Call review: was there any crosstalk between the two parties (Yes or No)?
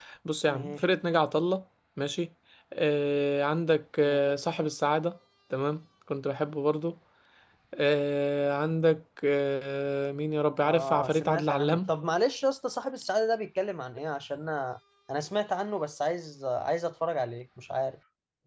Yes